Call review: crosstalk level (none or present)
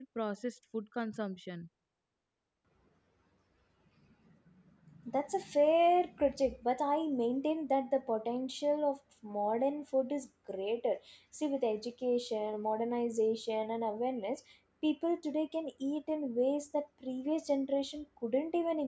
none